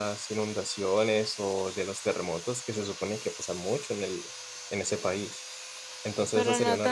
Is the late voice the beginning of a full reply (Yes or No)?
Yes